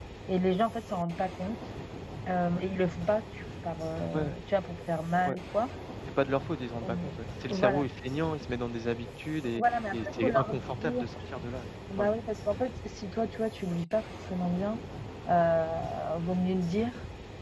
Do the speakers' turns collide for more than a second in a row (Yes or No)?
Yes